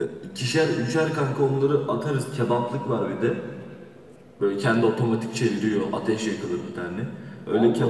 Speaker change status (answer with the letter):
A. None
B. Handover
A